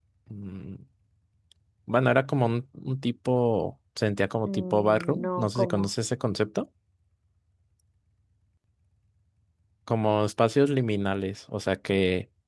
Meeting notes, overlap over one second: present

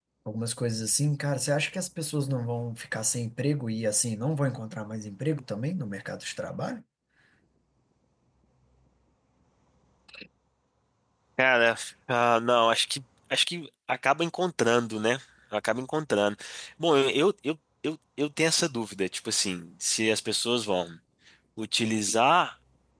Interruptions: none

